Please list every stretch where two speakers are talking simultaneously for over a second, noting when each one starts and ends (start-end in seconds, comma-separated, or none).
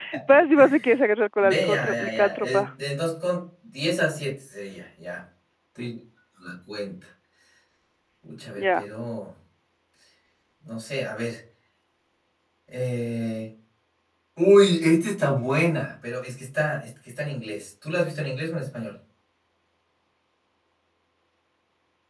1.4-2.6